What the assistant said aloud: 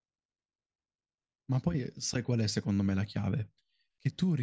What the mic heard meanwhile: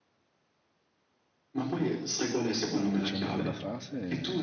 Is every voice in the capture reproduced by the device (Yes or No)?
No